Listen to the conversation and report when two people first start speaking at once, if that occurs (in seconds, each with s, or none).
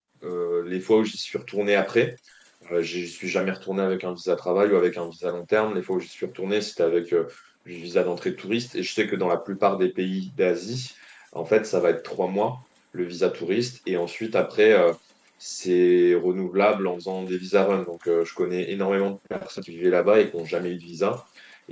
none